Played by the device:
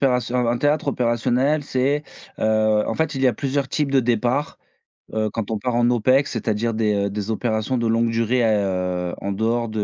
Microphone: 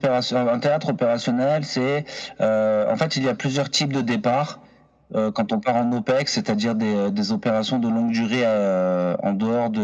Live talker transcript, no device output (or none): none